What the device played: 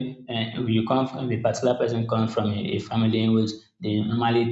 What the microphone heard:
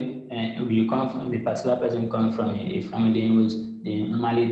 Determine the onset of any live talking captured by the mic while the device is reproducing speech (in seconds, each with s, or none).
none